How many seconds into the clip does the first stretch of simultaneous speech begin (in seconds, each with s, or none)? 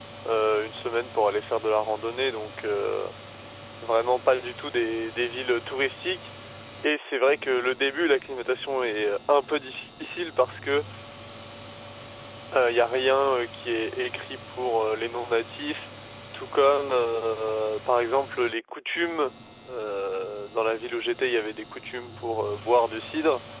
none